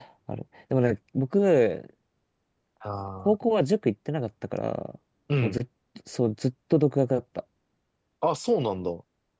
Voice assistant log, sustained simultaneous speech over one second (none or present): none